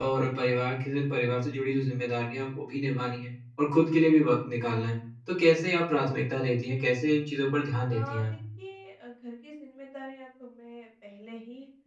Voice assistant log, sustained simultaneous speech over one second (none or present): none